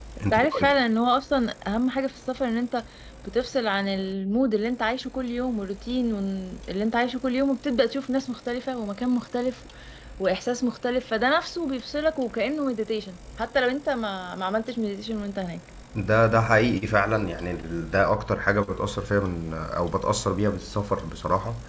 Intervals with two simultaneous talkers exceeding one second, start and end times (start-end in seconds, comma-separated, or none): none